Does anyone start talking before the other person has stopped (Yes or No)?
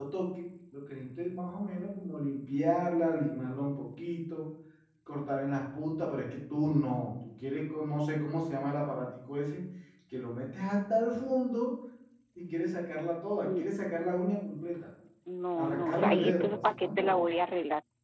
Yes